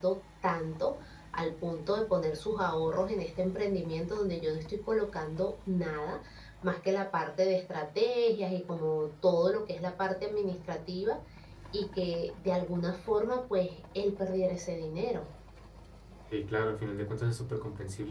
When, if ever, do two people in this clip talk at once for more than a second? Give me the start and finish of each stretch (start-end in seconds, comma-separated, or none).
none